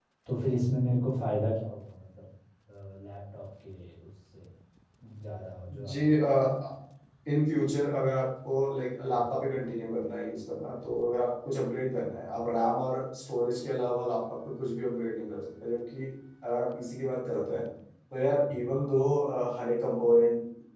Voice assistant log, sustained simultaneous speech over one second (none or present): none